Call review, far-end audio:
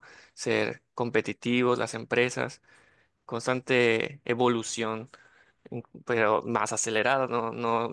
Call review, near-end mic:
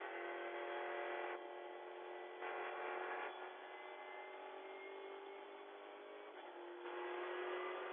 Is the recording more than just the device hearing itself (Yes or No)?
No